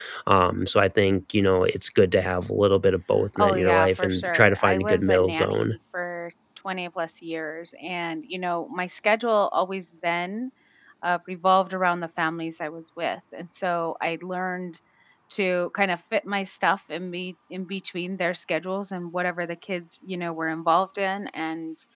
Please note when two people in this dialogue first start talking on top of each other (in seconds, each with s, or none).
3.4 s